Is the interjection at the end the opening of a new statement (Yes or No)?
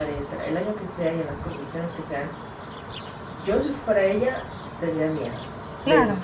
Yes